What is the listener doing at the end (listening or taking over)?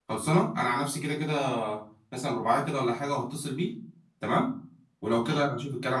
listening